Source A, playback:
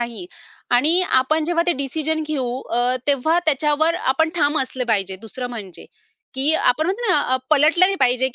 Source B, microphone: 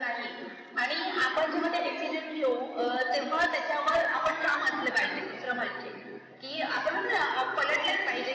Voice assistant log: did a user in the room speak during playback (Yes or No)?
No